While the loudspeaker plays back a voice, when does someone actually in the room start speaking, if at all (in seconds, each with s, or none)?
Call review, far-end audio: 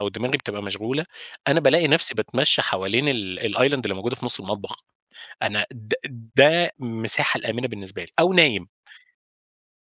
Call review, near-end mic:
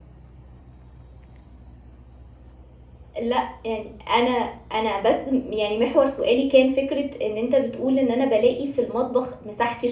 3.2 s